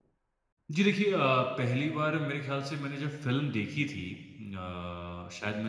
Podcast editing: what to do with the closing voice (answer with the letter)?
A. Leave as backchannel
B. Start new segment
A